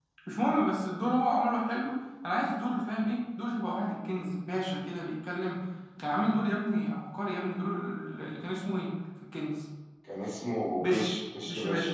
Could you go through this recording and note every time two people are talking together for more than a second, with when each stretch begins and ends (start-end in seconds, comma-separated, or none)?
none